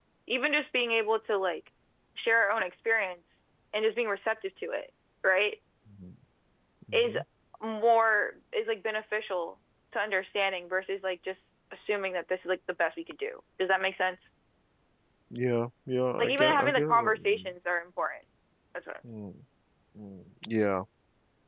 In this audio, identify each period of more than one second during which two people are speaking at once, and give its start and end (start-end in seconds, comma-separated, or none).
16.2-17.5